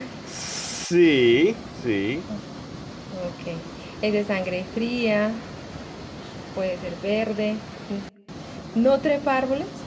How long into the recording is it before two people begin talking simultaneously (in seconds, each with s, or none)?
none